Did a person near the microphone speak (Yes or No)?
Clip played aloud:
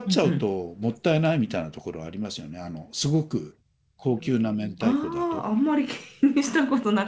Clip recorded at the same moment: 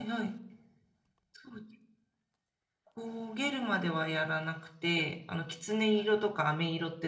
Yes